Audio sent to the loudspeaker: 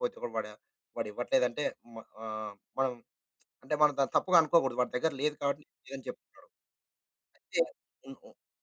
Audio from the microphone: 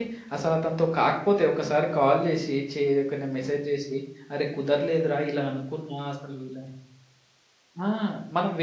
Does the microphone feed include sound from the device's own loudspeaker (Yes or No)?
No